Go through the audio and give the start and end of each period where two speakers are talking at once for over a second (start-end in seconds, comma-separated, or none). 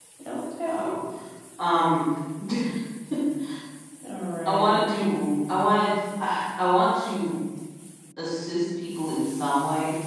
none